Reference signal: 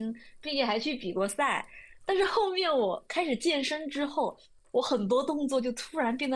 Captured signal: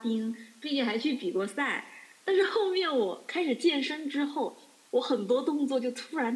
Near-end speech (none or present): none